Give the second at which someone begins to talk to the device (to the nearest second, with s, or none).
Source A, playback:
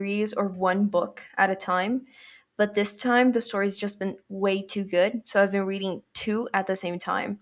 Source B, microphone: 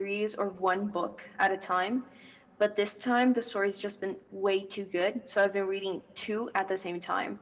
none